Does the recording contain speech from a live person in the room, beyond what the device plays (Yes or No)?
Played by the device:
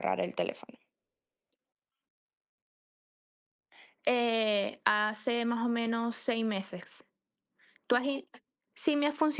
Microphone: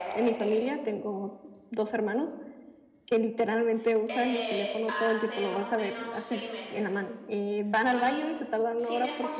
Yes